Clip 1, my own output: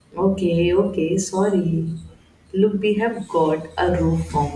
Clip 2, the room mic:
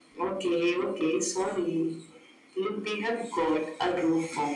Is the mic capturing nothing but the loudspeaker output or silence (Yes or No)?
Yes